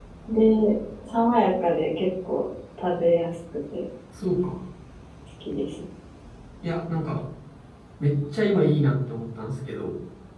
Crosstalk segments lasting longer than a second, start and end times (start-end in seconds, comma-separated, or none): none